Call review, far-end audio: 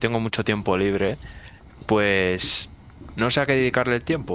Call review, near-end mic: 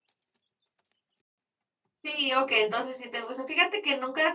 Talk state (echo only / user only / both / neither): user only